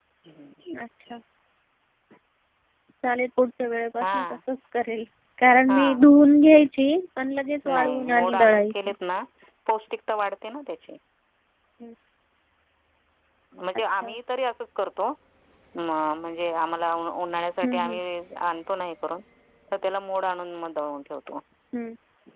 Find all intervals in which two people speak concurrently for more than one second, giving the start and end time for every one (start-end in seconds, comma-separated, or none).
7.7-8.9